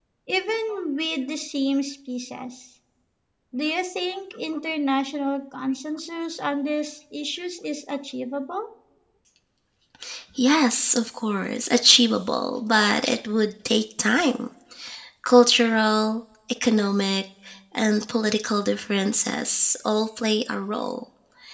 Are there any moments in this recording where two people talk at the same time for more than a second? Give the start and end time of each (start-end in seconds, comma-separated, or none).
none